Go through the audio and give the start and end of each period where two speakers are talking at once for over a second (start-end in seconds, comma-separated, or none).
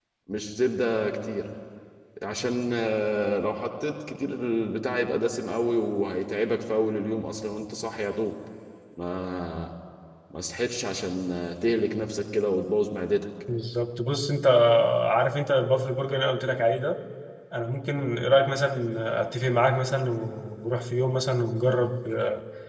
none